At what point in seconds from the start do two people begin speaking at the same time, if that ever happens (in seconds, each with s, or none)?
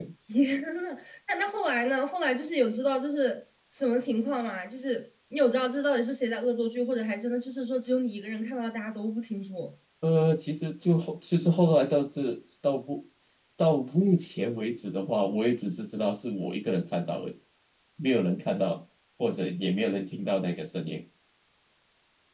none